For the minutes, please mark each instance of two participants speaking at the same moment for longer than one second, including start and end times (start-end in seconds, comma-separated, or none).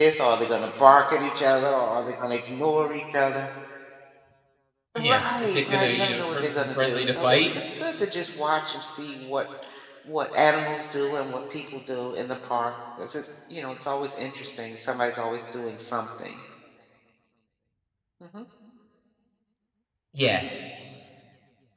5.0-7.5